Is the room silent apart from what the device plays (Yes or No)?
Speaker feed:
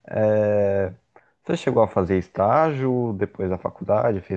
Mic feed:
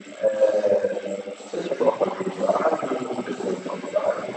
Yes